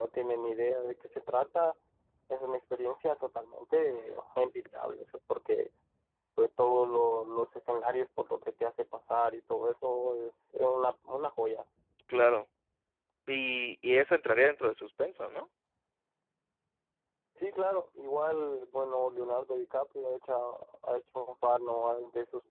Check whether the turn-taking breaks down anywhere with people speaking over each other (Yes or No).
No